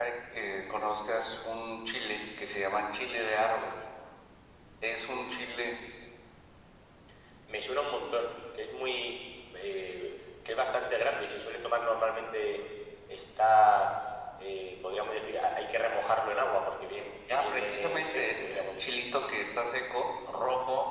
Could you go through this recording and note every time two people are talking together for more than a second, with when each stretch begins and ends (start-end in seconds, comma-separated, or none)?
17.3-19.0